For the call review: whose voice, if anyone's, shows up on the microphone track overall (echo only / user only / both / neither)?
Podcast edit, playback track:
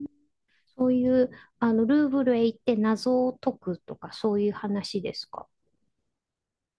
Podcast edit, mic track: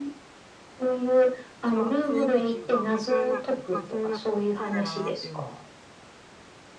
both